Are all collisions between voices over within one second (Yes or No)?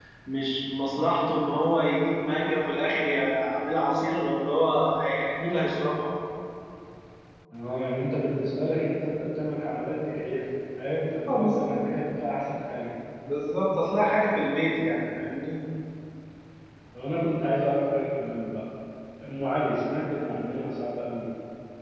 Yes